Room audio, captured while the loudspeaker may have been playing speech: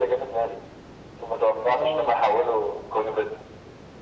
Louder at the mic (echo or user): echo